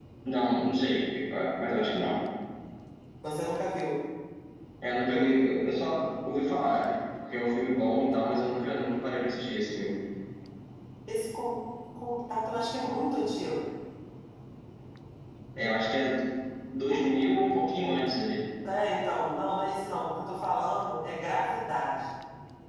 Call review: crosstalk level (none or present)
none